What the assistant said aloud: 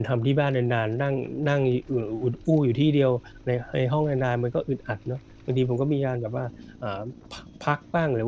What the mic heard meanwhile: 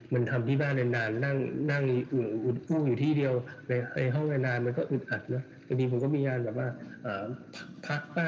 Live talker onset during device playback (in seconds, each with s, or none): none